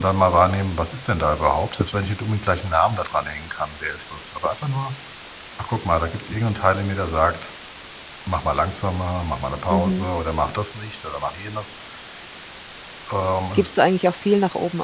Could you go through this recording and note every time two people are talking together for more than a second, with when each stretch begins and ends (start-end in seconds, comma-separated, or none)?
none